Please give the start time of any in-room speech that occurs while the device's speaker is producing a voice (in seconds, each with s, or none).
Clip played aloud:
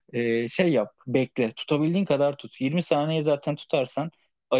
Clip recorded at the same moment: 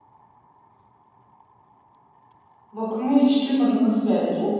2.7 s